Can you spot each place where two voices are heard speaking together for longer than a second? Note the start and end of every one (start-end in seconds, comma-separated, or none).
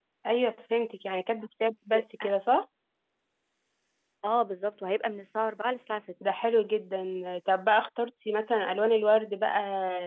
none